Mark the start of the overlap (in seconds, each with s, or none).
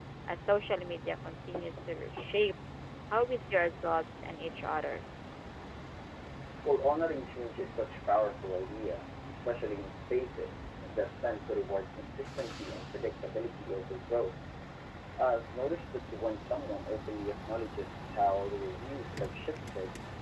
none